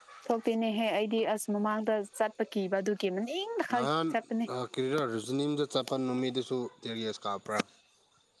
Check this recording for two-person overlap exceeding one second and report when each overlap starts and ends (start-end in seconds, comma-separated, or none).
none